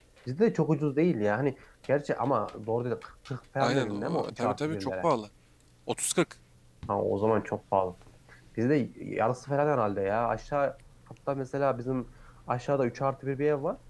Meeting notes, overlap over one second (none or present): present